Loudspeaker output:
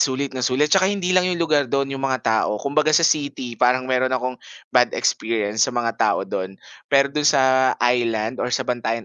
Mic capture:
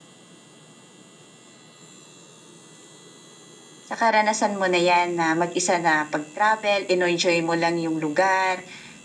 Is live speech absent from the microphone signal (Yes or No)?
No